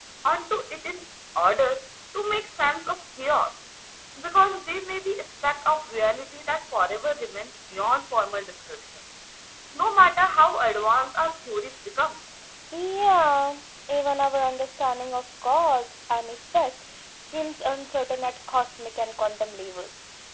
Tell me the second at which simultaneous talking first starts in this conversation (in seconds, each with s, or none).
none